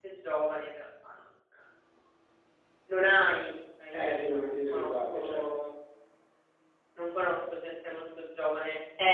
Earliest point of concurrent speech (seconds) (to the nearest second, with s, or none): 4 s